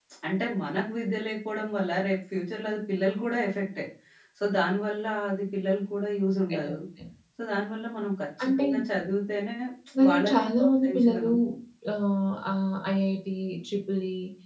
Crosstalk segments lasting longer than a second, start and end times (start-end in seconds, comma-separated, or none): 10.1-11.3